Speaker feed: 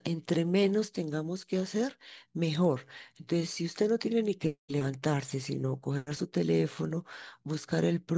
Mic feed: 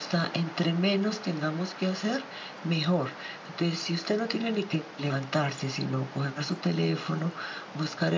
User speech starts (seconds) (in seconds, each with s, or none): none